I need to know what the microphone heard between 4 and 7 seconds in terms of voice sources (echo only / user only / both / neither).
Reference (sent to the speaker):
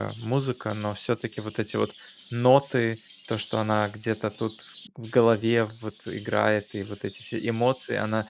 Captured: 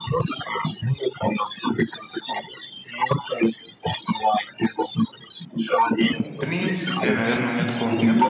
both